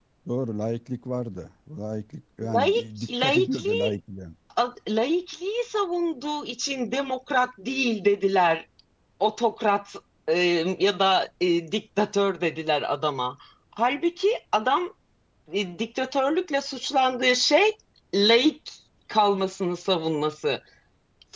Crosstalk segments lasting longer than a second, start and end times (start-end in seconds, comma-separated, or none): 2.5-3.9